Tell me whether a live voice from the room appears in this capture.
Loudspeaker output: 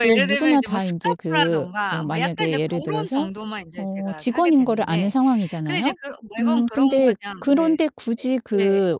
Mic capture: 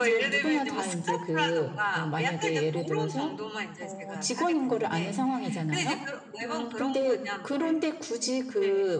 No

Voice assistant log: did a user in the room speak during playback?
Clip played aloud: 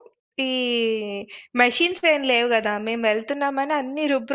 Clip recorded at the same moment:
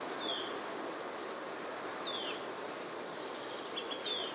No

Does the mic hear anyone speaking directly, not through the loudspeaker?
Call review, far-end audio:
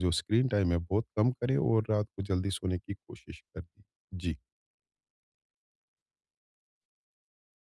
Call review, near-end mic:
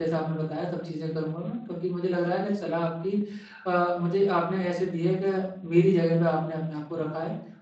Yes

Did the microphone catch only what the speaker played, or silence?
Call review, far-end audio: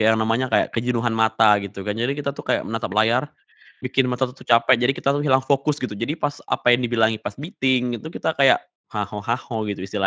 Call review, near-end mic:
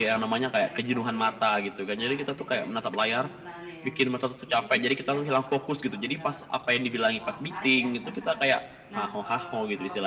No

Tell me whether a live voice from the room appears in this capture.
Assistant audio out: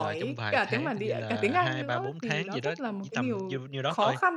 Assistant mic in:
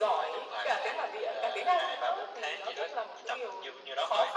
No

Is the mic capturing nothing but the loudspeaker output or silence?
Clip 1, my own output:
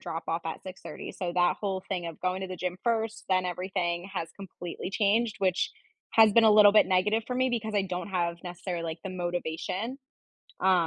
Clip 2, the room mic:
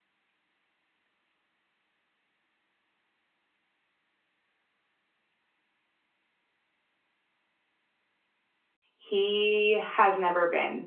No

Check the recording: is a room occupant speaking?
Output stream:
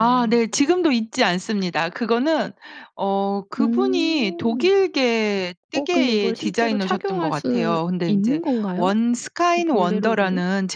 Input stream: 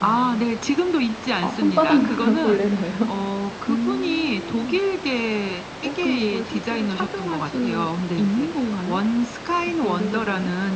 Yes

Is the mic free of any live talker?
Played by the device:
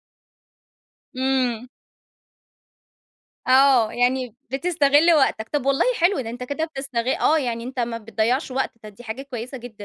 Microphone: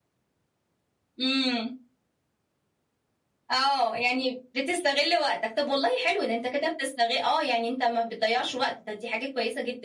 Yes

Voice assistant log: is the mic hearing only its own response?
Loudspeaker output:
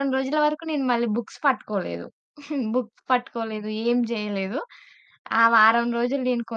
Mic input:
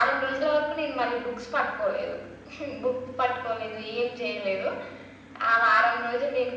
Yes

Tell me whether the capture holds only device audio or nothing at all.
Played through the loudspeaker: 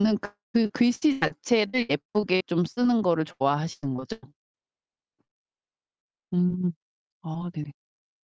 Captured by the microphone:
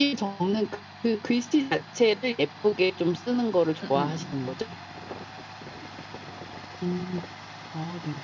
No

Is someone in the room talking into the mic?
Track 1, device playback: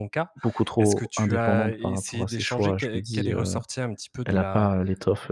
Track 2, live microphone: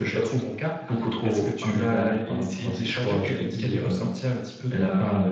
No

